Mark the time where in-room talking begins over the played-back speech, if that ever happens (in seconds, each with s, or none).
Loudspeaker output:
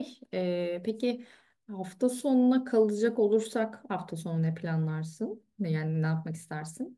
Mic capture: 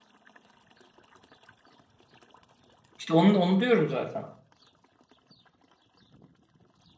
3.0 s